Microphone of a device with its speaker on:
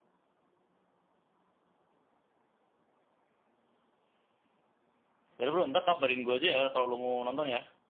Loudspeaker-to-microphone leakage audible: No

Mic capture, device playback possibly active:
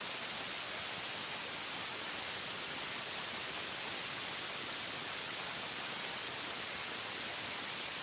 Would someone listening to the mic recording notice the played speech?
No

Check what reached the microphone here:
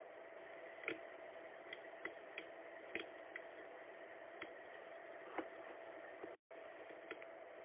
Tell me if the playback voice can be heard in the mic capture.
No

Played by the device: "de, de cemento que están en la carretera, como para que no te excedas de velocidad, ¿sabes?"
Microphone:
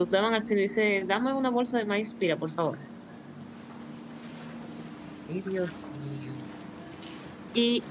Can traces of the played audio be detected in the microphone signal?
No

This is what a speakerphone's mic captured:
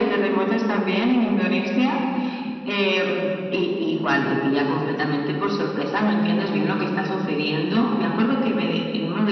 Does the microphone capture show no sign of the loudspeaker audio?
No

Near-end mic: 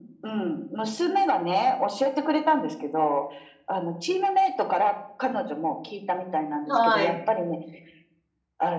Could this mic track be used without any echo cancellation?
No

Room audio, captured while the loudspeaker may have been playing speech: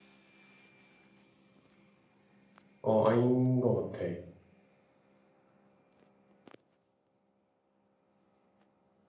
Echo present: No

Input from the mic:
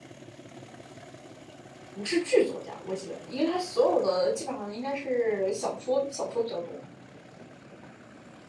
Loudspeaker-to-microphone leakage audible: No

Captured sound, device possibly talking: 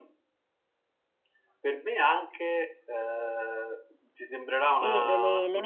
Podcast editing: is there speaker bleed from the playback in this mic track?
Yes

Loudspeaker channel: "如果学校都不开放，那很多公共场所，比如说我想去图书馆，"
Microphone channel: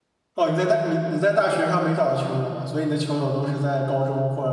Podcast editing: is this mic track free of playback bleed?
Yes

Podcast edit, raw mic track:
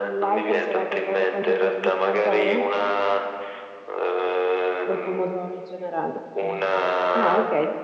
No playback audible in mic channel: No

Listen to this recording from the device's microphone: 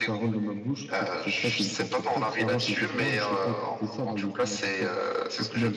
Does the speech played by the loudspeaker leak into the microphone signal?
Yes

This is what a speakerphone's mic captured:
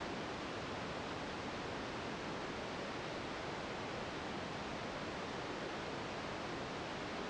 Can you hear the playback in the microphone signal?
No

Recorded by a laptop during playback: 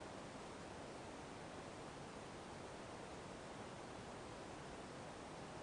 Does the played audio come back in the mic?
No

